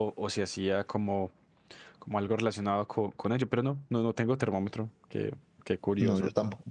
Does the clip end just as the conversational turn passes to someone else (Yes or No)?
Yes